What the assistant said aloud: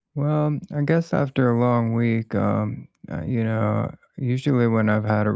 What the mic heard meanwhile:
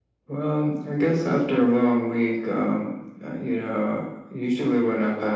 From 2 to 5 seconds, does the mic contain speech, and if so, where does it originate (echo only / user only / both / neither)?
echo only